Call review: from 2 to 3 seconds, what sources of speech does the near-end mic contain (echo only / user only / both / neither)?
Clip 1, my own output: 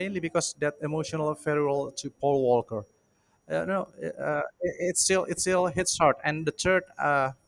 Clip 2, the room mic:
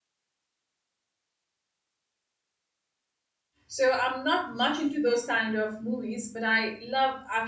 neither